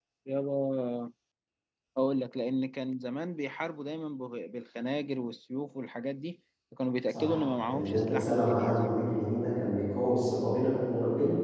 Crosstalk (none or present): present